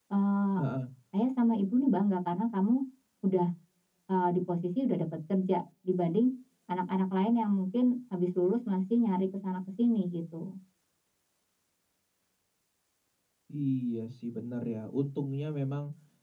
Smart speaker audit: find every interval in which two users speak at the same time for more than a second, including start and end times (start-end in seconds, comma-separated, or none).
none